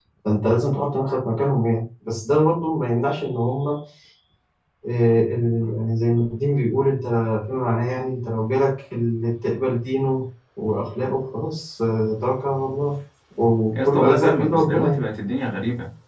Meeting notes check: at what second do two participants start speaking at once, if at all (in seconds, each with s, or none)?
13.7 s